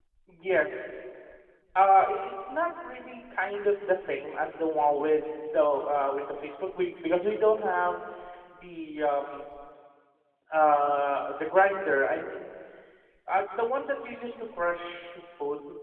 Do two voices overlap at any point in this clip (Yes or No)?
No